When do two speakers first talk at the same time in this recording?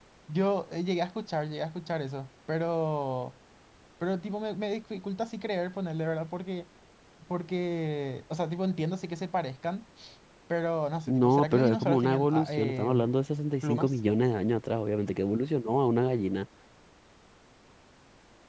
11 s

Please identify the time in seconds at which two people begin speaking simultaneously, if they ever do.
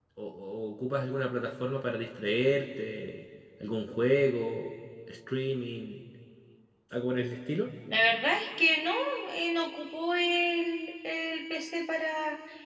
none

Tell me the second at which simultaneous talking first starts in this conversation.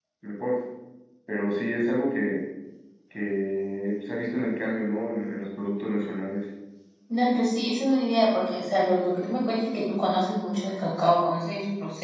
none

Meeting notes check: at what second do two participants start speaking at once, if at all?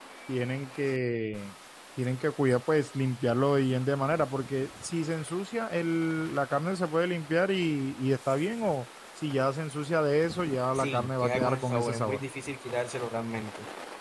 11 s

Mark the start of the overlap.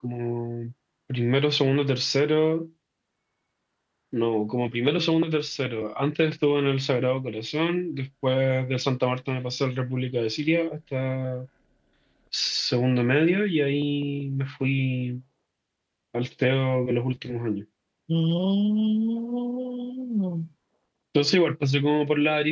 none

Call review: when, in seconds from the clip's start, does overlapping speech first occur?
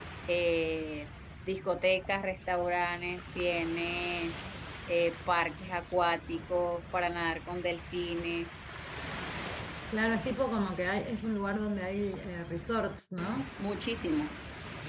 none

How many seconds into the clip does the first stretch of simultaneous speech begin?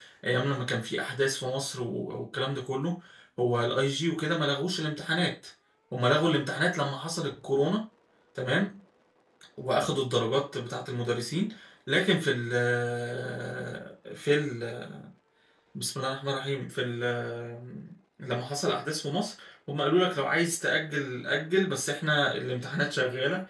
none

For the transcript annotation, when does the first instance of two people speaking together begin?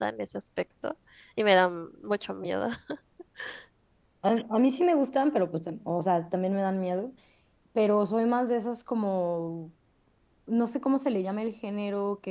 none

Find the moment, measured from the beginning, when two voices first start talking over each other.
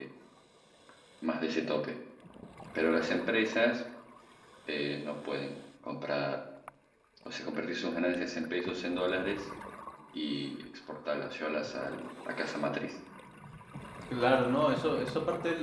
none

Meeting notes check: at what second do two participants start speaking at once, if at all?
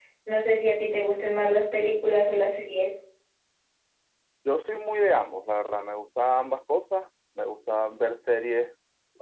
none

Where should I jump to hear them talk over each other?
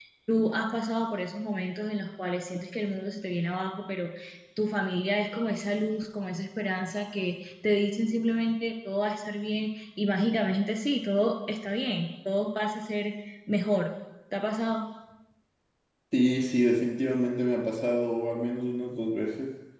none

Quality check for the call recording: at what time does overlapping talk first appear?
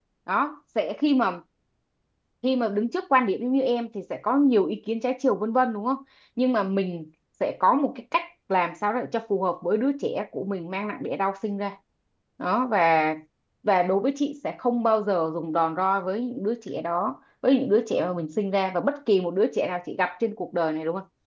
none

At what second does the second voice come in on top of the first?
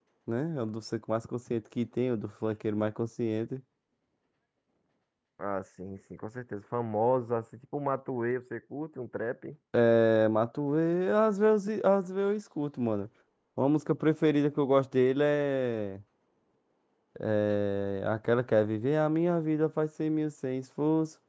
none

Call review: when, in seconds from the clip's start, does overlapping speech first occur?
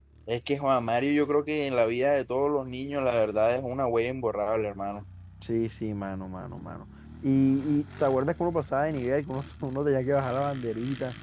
none

